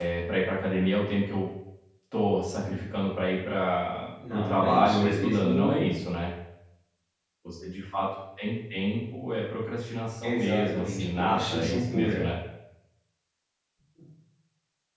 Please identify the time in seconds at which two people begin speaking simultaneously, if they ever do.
4.2 s

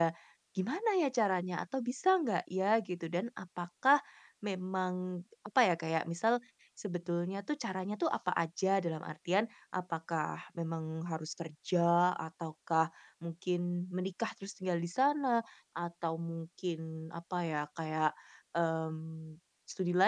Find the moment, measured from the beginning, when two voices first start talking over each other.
none

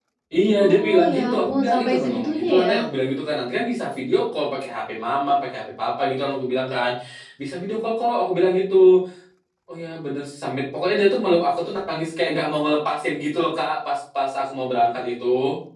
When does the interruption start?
0.6 s

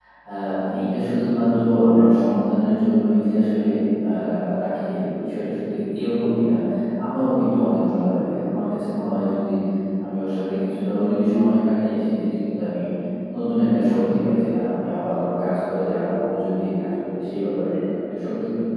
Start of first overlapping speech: none

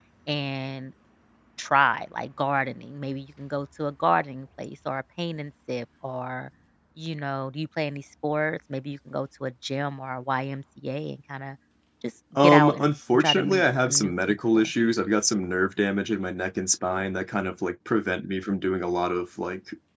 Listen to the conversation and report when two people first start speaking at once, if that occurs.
12.3 s

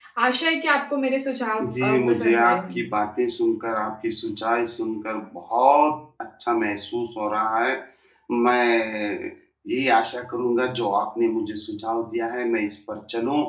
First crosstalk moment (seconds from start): 1.6 s

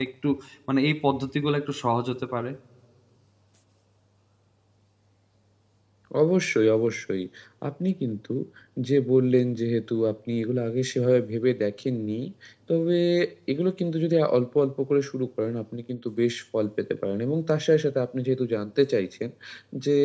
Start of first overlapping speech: none

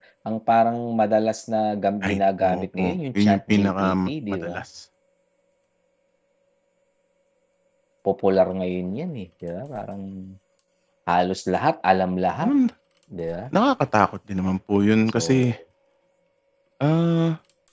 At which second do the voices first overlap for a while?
2.0 s

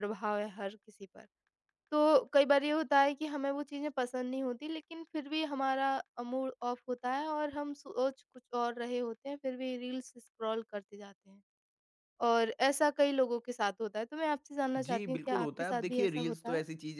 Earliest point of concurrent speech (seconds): 14.8 s

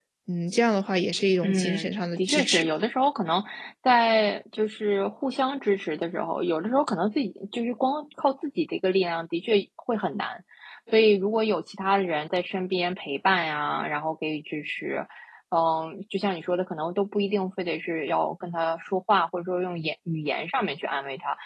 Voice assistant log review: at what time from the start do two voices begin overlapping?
1.4 s

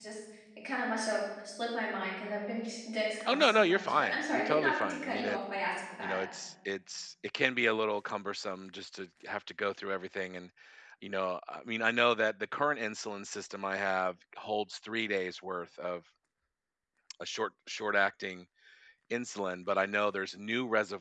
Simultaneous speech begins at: 3.2 s

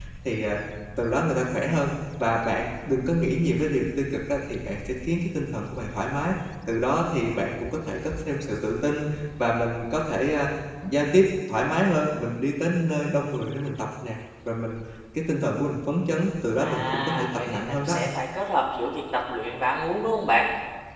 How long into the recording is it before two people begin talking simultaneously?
16.6 s

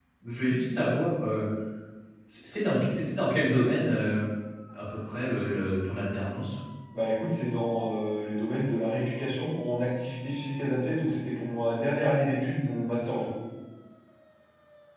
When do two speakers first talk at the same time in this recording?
none

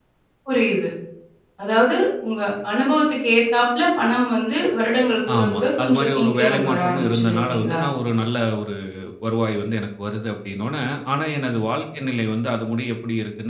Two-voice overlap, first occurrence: 5.3 s

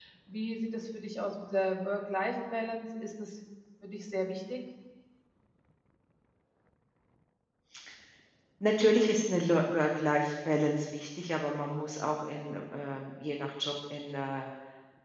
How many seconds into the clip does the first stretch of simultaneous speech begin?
none

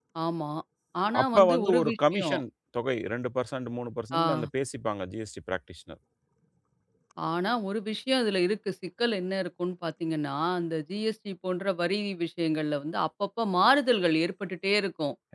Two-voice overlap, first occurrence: 1.2 s

